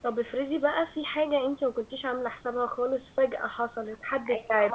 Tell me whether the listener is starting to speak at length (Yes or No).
Yes